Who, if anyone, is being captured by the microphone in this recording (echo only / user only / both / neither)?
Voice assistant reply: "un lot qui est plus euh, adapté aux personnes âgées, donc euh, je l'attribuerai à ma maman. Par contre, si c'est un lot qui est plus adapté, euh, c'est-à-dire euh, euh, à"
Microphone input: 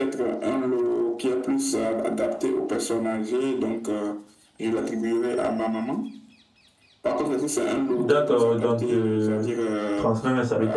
both